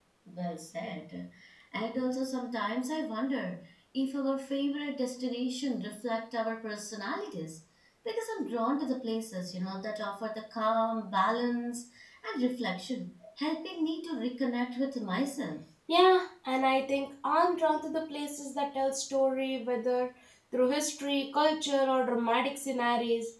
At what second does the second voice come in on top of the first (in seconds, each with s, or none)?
none